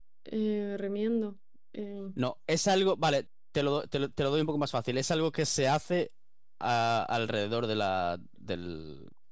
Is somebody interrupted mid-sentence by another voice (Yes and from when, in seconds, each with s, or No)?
No